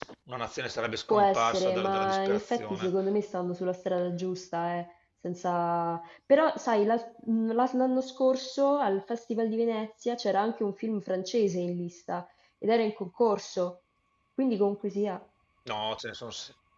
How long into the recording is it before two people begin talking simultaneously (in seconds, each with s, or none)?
1.1 s